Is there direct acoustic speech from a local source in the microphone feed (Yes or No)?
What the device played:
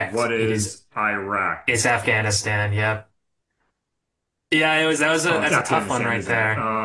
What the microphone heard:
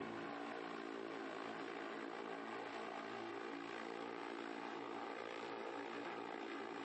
No